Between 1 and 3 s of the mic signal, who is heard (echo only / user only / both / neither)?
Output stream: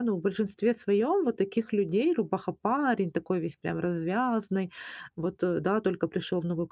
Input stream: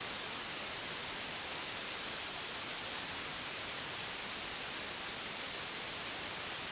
neither